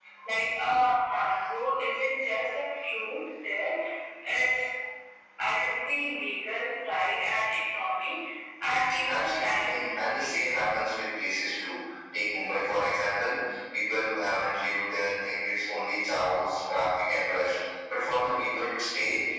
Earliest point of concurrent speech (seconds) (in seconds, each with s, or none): 9.1 s